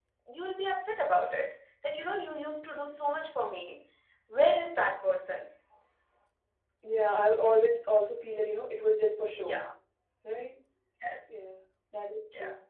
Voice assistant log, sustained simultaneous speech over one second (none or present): none